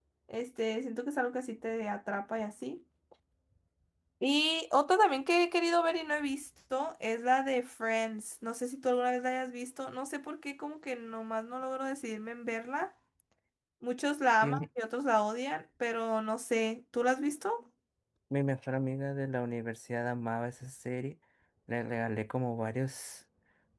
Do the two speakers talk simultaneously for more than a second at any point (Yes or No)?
No